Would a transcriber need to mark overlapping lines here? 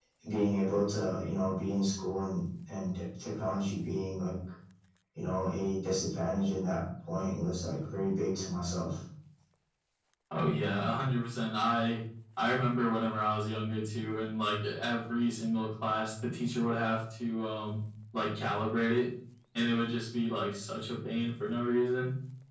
No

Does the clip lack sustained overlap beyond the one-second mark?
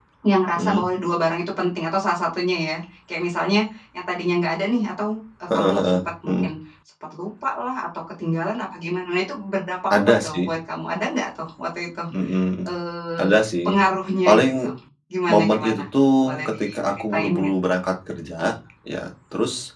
No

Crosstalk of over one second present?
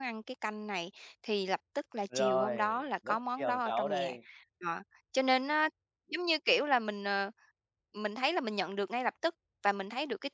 Yes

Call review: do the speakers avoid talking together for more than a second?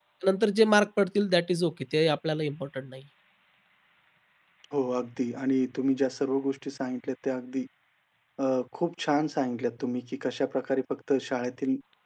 Yes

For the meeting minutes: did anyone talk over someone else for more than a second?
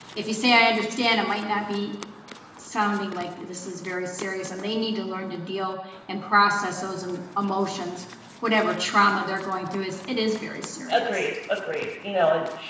No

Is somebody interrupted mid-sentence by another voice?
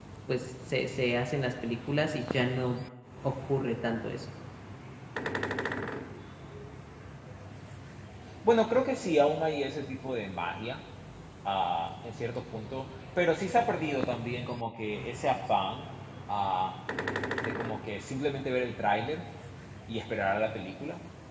No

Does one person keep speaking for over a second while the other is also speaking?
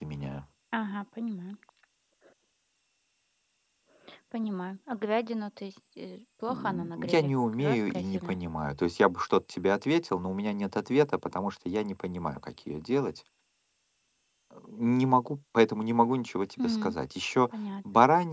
Yes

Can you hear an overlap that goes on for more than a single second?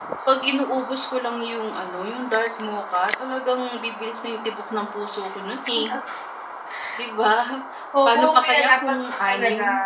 Yes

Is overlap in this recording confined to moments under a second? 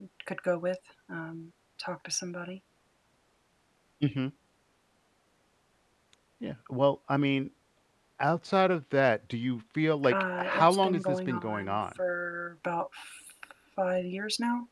No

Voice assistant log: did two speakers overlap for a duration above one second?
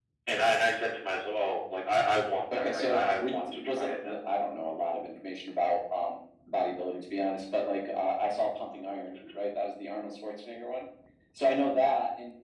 Yes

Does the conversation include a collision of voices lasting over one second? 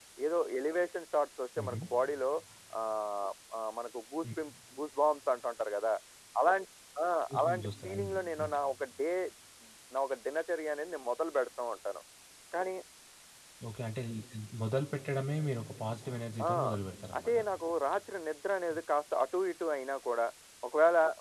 Yes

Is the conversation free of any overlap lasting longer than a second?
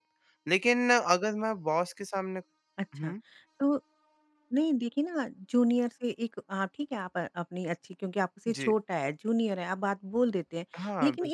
Yes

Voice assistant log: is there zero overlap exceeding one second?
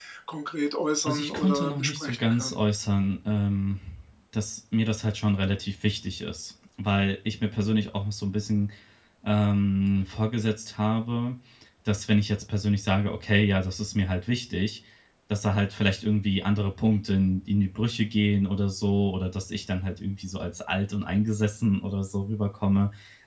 No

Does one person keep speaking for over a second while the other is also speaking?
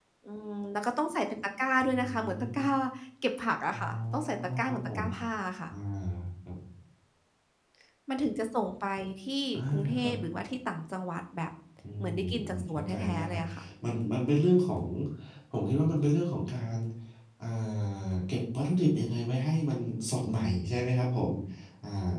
Yes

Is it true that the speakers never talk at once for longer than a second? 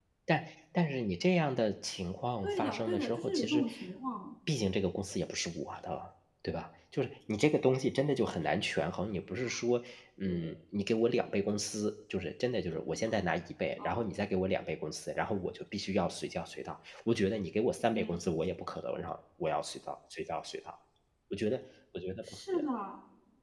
No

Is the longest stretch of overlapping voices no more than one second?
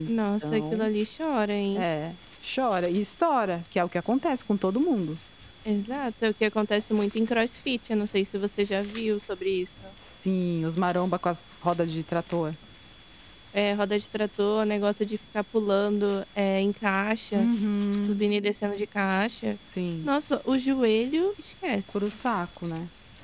Yes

